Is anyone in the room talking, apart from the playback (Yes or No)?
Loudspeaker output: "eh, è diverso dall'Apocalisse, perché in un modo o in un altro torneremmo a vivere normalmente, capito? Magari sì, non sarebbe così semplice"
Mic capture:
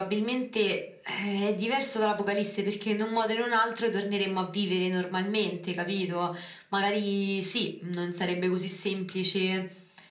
No